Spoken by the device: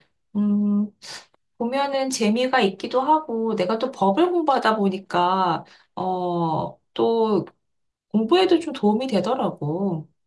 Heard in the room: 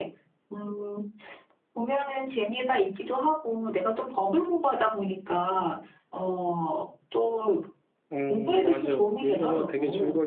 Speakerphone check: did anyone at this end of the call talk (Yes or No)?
Yes